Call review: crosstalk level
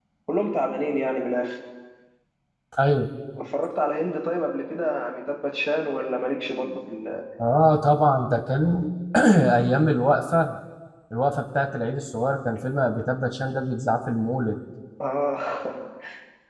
none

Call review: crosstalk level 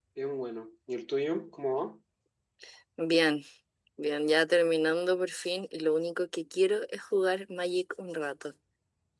none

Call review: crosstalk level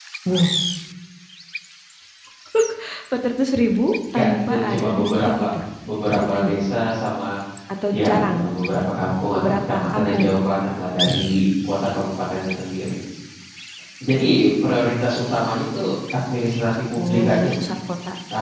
present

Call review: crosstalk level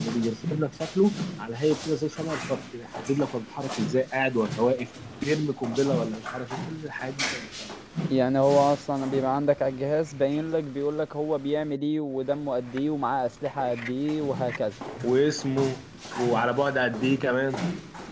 none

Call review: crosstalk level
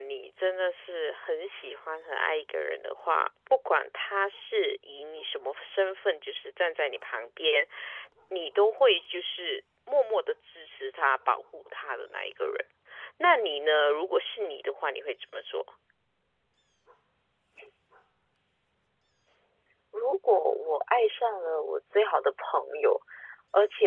none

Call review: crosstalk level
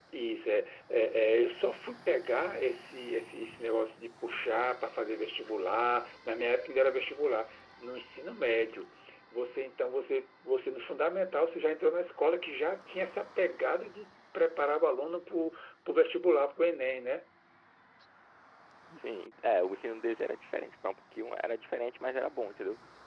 none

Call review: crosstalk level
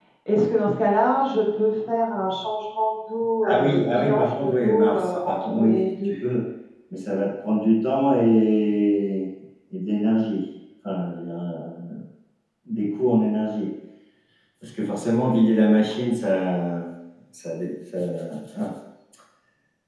present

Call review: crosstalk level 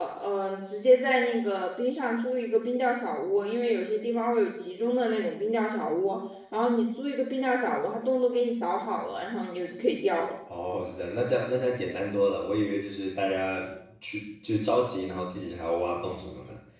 none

